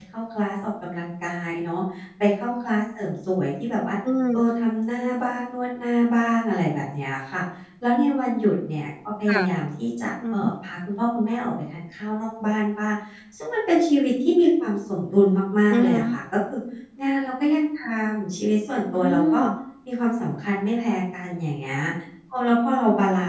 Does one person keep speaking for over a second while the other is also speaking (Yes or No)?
No